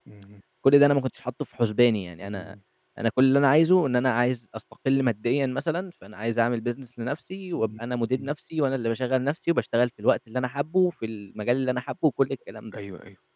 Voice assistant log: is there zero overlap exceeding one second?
Yes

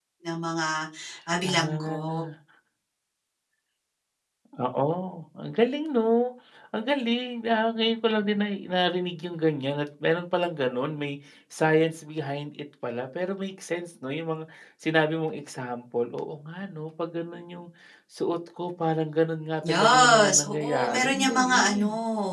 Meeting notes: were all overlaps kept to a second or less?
No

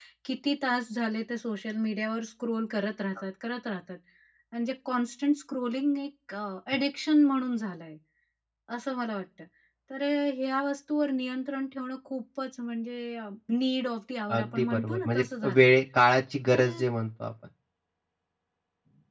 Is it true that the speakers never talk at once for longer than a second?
No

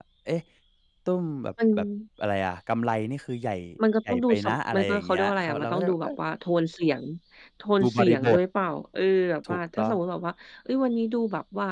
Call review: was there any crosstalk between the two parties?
Yes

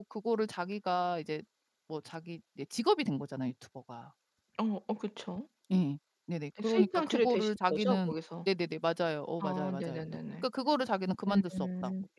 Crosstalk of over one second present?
Yes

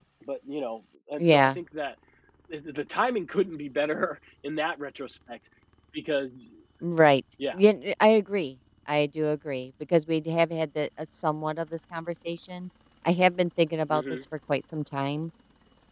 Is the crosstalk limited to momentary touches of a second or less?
Yes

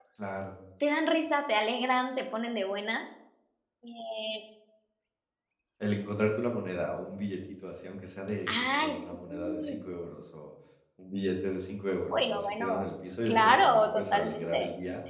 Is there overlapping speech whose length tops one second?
Yes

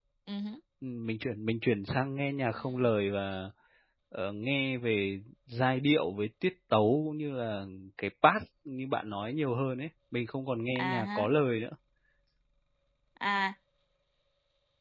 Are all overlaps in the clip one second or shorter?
Yes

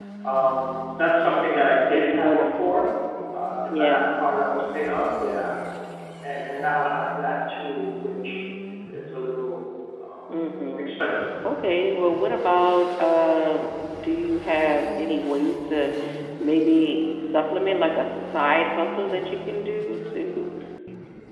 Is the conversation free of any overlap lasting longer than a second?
No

